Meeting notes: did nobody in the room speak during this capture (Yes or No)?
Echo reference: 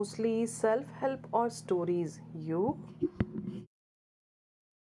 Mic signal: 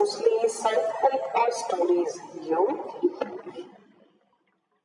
Yes